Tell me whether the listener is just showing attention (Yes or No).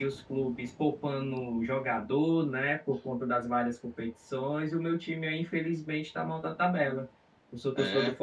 Yes